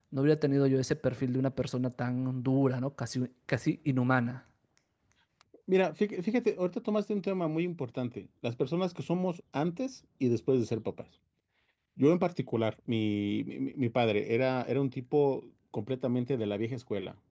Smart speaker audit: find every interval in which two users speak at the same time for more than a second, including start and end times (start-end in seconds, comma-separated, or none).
none